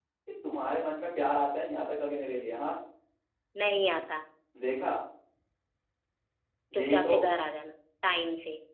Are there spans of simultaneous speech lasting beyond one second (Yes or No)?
No